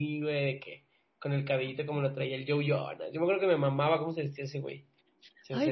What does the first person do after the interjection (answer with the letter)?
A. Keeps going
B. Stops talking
B